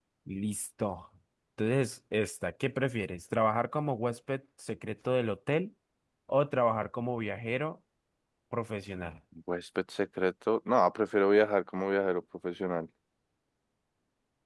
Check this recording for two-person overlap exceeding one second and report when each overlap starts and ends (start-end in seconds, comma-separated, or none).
none